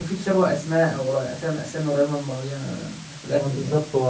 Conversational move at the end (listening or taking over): taking over